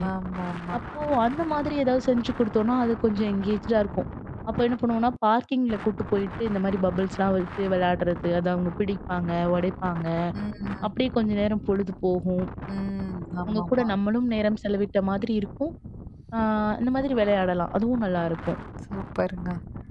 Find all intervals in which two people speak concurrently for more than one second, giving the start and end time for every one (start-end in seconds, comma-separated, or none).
none